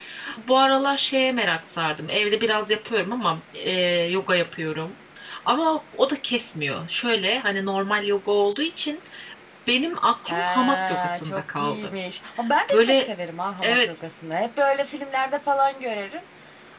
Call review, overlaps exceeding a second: present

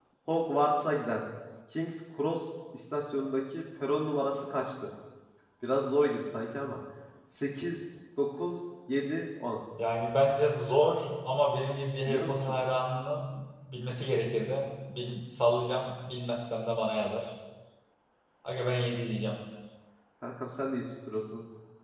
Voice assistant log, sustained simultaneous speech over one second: none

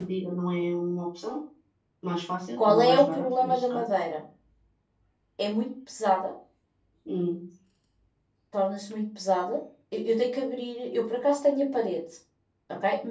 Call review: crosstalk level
present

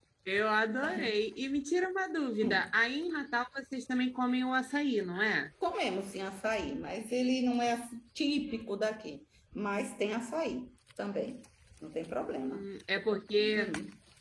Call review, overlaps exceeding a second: none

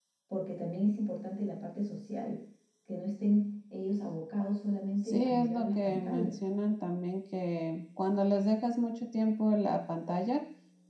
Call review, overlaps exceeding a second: present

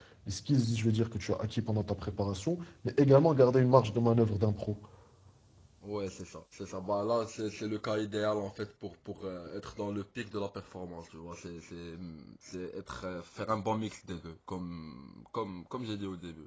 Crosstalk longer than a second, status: none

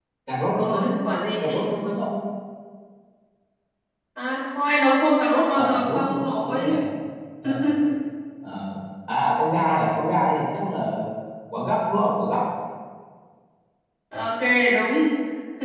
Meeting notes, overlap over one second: present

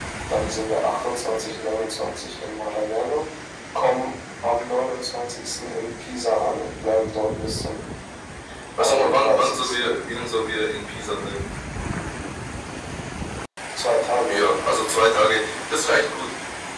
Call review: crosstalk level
present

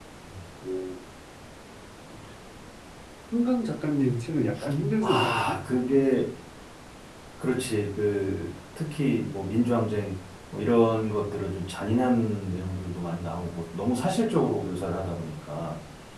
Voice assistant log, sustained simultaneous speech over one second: none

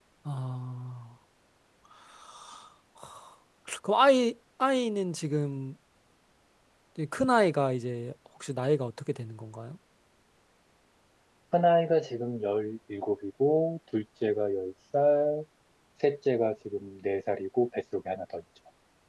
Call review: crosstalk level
none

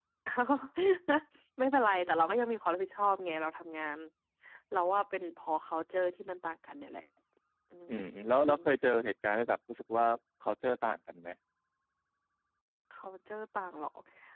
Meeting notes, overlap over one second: none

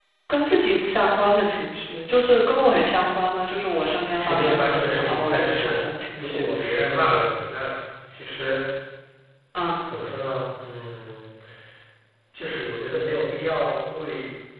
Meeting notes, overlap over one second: present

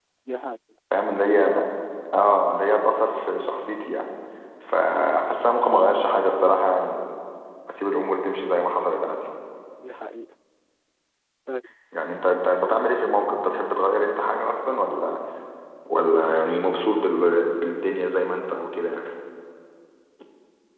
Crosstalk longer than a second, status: none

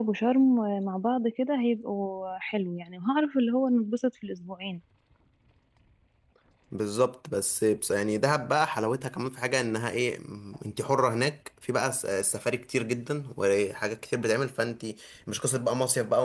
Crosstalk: none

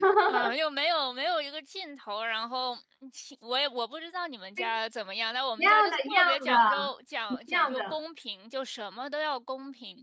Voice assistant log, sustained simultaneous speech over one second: present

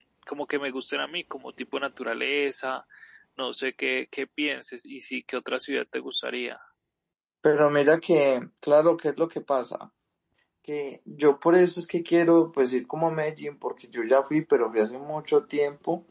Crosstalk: none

